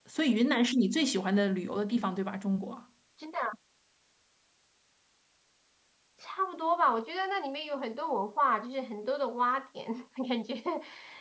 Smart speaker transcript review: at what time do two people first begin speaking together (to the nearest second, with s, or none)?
none